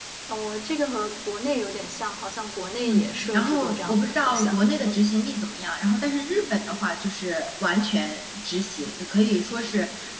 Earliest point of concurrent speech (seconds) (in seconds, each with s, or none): 2.8 s